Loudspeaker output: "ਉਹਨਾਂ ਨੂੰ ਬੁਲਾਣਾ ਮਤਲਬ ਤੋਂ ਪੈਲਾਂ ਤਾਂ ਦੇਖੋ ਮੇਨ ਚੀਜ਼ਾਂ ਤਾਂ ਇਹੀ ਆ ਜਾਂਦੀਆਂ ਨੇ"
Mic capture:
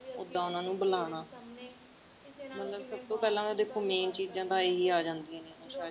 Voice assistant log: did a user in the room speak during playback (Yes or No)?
Yes